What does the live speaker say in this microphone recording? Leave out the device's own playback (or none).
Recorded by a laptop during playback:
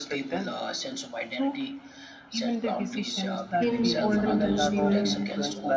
In olden times, even